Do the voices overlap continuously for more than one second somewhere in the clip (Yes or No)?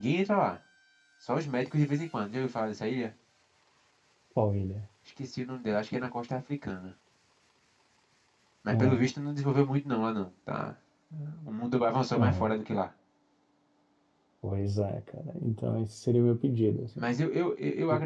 No